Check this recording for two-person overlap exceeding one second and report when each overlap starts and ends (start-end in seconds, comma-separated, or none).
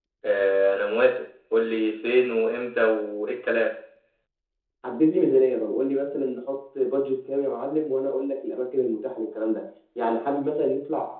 none